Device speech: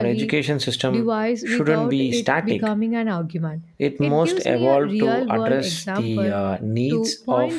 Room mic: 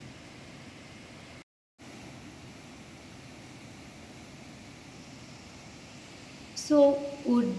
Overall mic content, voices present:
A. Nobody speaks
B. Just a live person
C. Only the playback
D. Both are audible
B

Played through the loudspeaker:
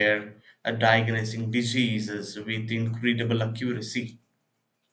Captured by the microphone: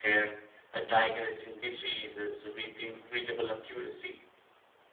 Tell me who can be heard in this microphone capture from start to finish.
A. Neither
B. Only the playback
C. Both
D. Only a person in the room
B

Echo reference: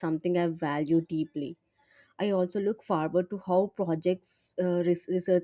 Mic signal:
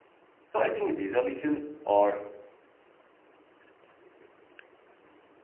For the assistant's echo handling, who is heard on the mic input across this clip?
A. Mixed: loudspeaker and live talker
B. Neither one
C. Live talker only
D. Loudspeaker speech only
C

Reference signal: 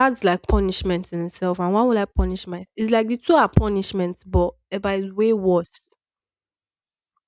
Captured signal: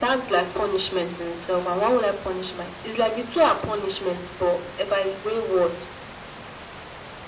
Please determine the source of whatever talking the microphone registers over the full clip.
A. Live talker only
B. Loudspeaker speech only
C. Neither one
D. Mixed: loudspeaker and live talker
B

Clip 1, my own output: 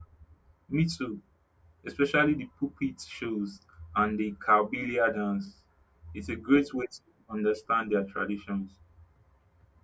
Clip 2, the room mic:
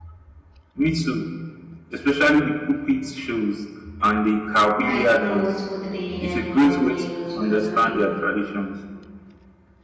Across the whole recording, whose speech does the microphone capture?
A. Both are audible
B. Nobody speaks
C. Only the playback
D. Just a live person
A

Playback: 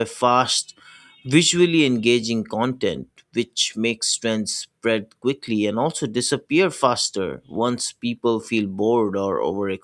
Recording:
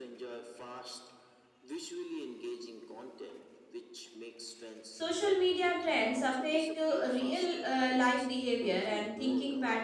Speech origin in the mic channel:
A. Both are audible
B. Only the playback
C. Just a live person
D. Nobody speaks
A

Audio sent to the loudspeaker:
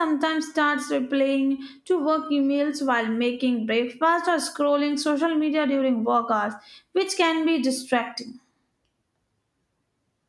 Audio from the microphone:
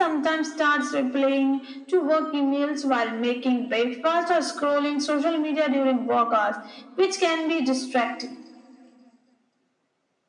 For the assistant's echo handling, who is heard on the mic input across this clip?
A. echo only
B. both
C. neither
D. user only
A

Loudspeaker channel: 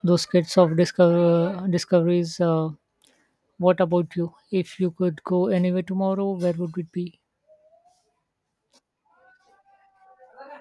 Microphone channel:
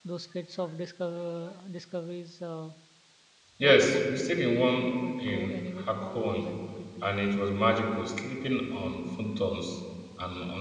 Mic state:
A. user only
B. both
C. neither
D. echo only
B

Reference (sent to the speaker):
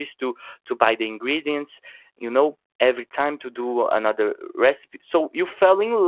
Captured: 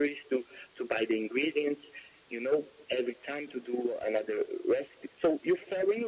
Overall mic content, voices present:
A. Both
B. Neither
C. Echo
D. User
C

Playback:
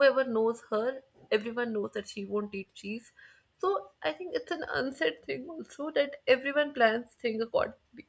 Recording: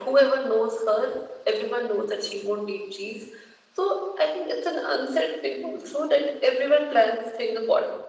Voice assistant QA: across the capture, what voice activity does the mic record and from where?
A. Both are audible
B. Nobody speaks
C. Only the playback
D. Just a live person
C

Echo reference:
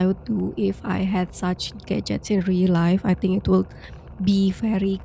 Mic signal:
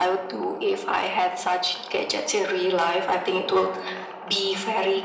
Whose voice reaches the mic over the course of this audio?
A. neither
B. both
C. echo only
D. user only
C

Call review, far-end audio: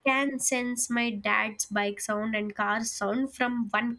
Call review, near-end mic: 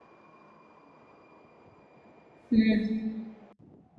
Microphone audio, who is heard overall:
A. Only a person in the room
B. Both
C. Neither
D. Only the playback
A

